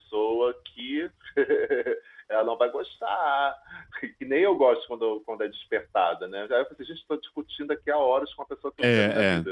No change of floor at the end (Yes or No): No